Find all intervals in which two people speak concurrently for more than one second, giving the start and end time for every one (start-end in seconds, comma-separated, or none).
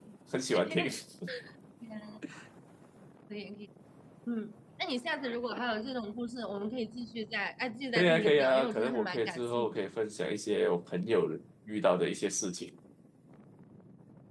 8.0-9.8